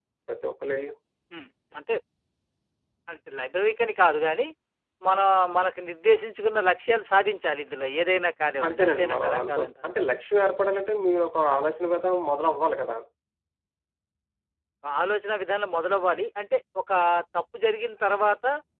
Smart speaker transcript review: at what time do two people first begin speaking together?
9 s

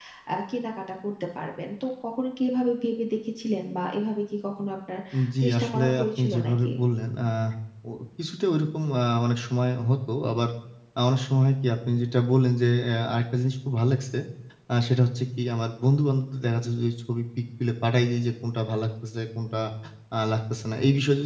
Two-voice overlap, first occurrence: 5 s

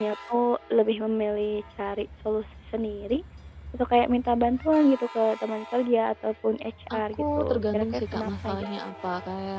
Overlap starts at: 7 s

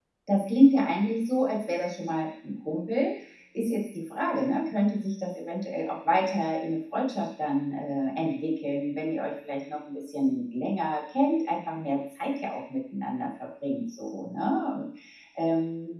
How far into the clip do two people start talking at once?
none

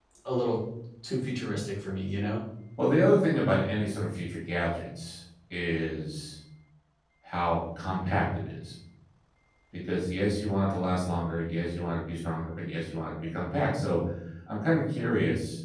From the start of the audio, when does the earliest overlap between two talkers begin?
none

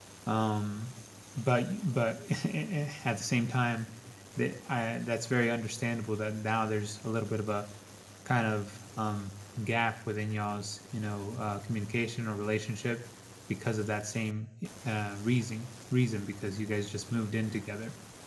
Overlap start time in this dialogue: none

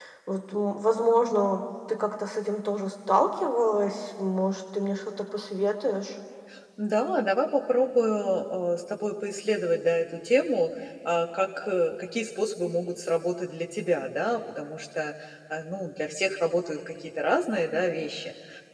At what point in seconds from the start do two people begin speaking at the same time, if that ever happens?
none

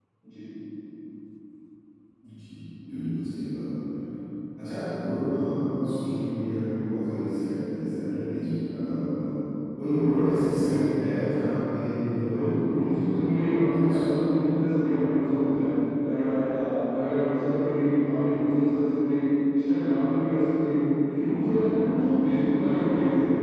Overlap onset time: 12 s

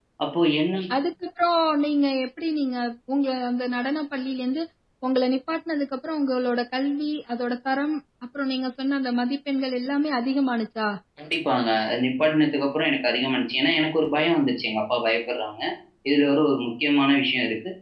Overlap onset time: none

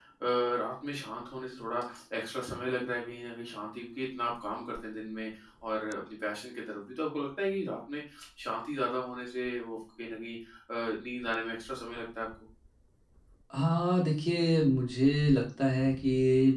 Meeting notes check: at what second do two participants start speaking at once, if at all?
none

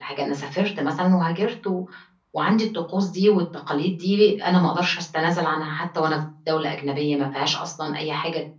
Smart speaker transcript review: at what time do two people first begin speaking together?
none

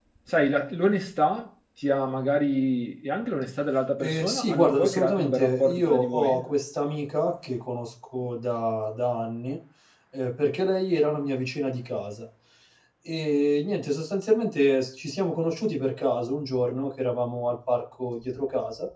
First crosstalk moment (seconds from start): 4 s

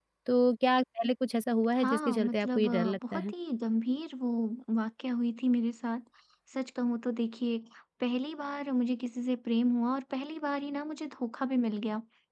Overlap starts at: 2 s

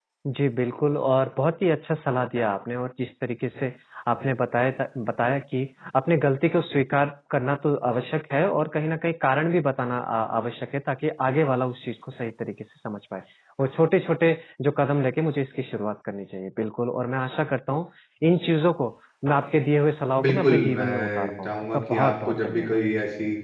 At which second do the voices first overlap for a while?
20 s

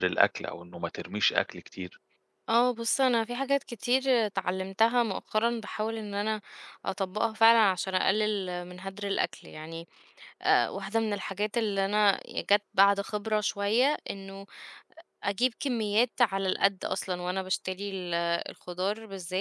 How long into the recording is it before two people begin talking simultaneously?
none

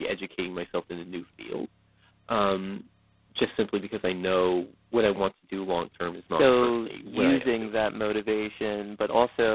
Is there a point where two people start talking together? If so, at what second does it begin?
6 s

